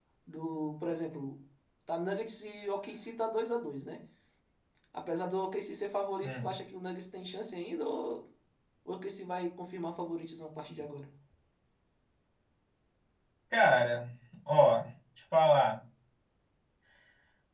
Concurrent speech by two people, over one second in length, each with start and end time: none

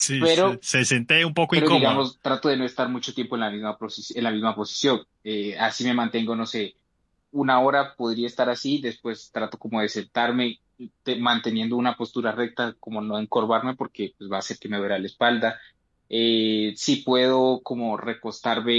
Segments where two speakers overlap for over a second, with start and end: none

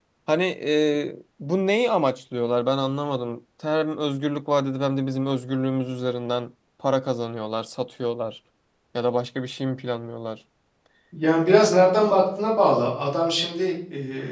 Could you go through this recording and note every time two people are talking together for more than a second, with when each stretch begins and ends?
none

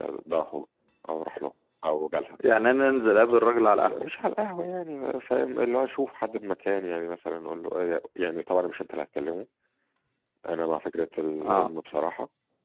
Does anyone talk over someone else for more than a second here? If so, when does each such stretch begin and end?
none

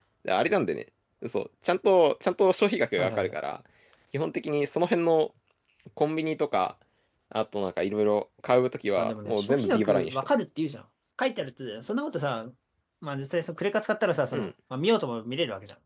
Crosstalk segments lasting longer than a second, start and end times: 9.0-10.2

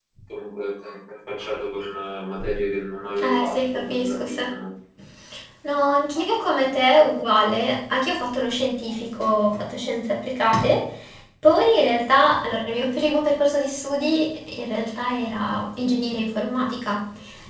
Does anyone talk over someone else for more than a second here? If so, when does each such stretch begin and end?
3.2-4.4

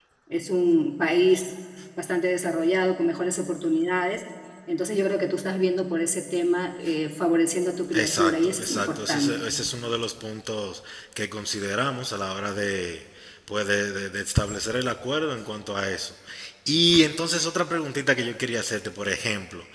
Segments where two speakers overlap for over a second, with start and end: 7.9-9.4

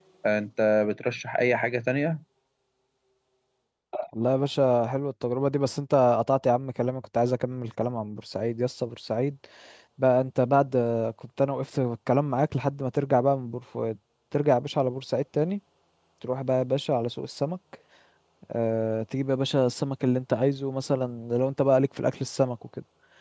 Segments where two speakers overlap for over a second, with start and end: none

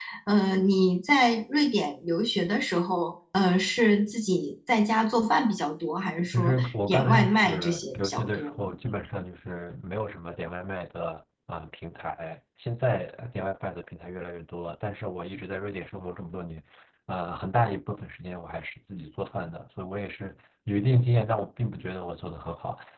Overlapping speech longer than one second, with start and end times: 6.3-8.6

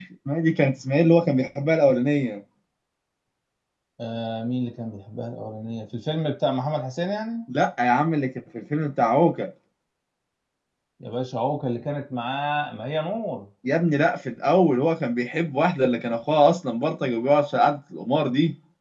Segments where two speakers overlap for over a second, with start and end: none

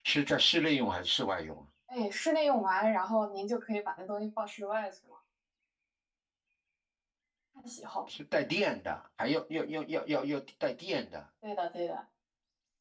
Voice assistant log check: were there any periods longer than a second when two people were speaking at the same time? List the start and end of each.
none

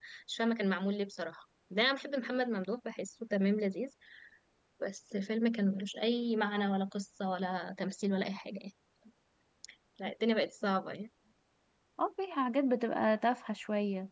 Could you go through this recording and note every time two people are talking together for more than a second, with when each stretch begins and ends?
none

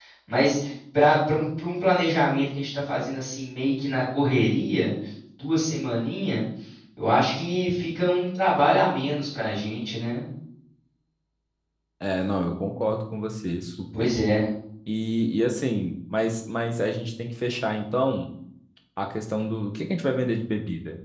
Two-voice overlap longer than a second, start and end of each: none

